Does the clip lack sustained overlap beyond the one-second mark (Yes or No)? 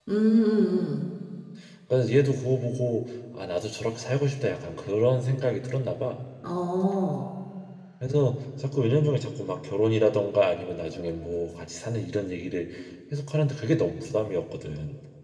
Yes